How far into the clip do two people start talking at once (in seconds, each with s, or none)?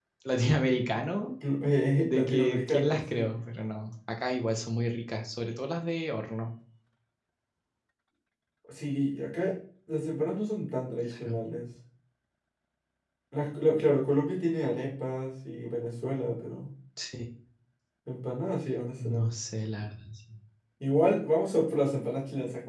2.0 s